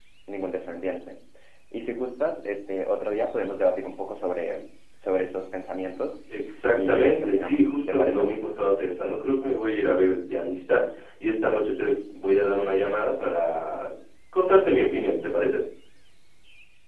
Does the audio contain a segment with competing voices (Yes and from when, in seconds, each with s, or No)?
Yes, from 6.7 s